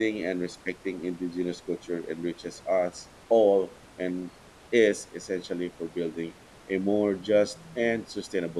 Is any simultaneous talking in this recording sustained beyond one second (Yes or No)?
No